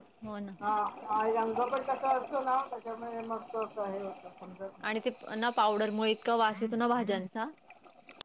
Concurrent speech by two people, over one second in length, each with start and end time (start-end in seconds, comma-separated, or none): none